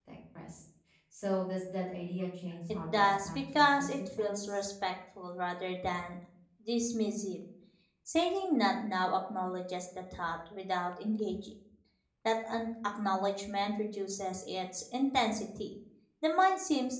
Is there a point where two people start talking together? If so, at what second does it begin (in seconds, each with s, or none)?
2.9 s